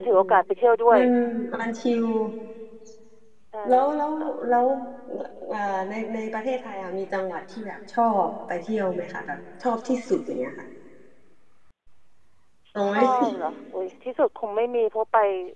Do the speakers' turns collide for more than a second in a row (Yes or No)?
No